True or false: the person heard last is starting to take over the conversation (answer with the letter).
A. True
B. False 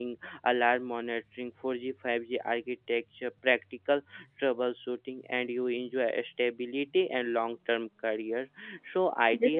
B